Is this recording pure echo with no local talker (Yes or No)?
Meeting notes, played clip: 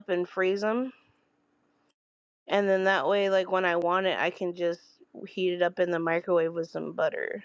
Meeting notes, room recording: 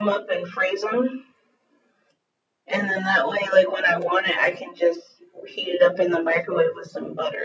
Yes